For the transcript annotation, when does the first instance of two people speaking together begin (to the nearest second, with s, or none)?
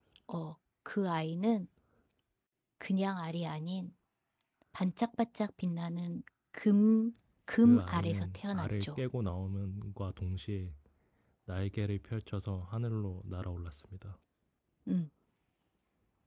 8 s